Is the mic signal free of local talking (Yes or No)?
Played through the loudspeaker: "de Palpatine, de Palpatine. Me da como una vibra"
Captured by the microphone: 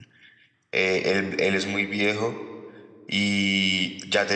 No